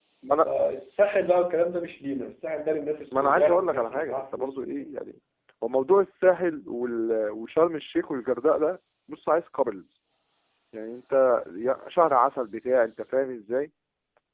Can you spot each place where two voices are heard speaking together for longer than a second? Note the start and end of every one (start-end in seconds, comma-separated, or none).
3.1-4.8